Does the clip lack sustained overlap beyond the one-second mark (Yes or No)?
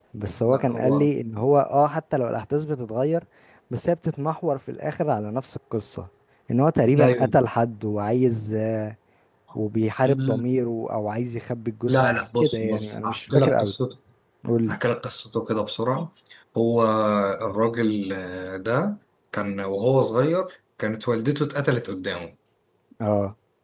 No